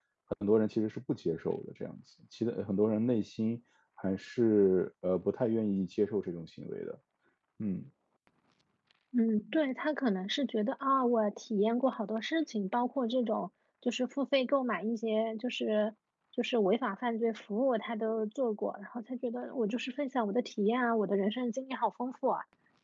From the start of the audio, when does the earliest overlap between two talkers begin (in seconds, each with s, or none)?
none